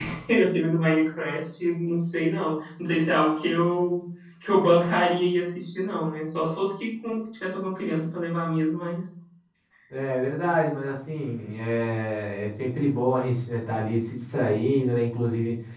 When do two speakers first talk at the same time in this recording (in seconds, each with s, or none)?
none